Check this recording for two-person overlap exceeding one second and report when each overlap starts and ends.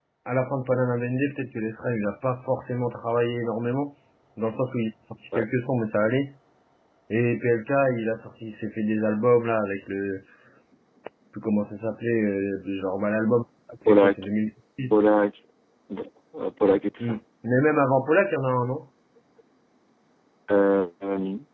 none

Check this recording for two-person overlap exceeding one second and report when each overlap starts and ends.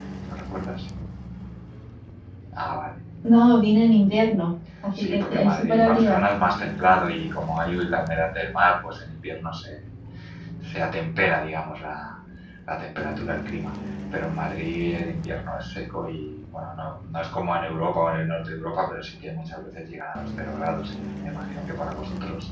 5.0-6.2

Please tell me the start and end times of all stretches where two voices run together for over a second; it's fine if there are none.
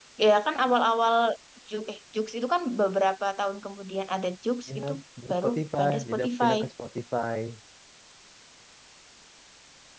5.3-6.6

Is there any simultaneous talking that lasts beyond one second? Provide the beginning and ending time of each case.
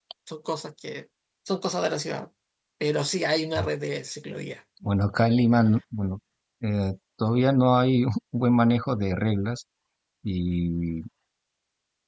none

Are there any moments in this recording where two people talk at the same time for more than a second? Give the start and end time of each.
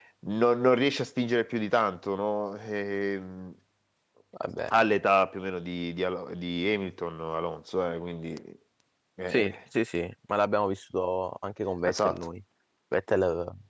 none

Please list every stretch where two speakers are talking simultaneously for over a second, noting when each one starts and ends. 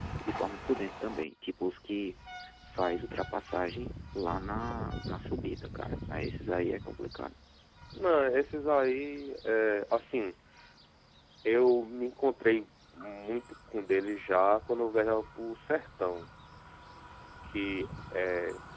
none

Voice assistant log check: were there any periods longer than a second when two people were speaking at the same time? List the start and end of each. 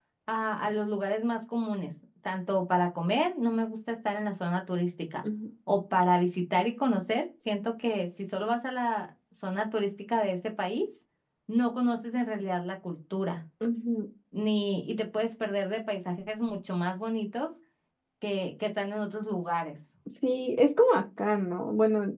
none

